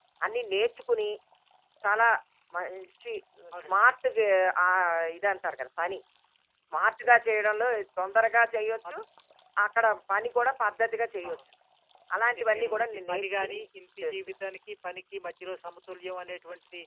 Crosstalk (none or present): present